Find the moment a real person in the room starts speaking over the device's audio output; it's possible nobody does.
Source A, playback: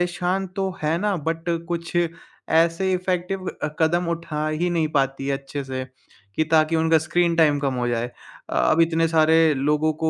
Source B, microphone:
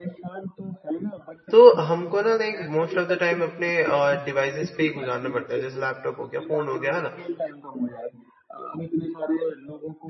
1 s

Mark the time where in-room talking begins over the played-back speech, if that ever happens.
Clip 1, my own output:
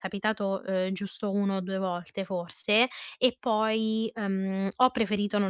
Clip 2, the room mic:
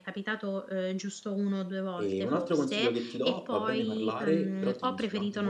2 s

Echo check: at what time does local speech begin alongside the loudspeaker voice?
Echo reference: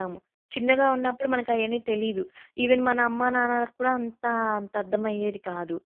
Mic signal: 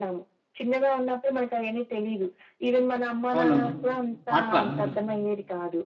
3 s

